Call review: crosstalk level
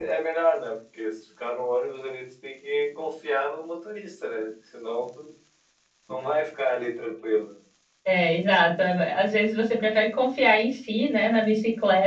none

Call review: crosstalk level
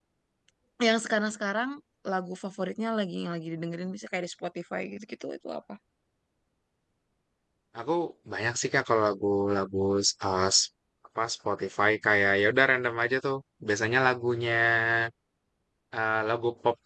none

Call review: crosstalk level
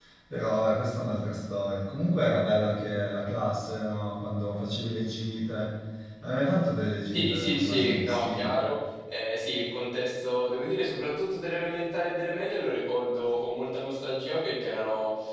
present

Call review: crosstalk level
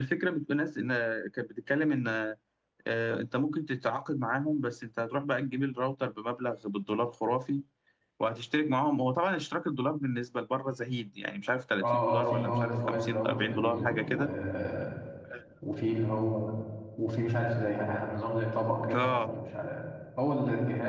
present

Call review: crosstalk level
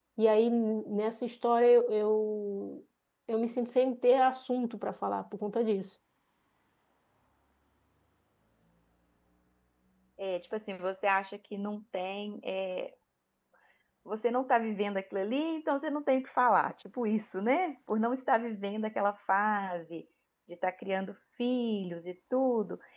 none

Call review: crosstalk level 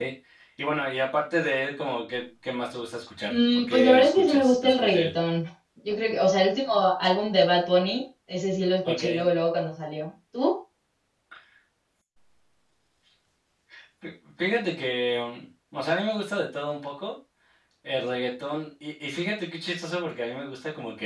present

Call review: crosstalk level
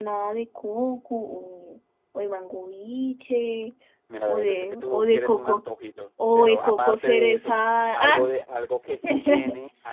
present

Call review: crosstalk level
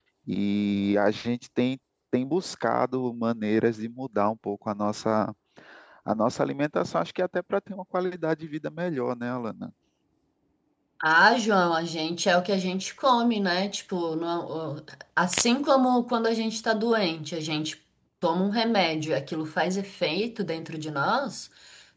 none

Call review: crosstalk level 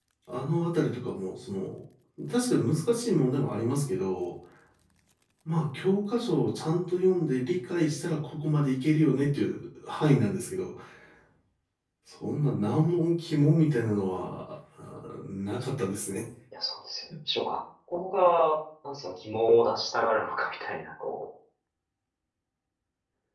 none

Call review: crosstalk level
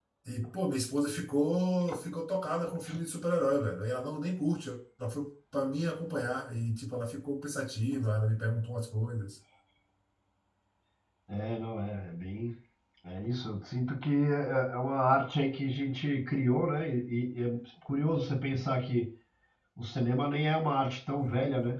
none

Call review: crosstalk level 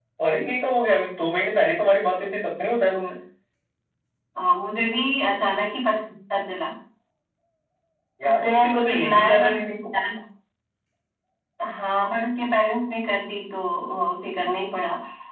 present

